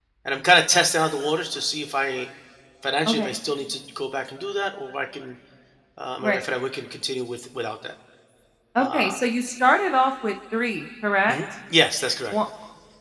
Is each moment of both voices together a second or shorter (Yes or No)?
Yes